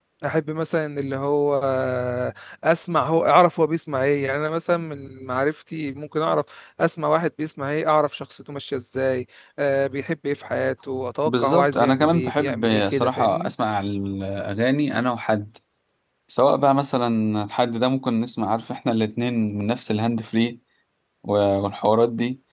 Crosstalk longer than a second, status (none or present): present